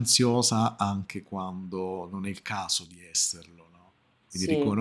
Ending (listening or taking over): listening